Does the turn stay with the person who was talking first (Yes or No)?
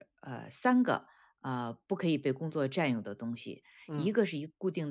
Yes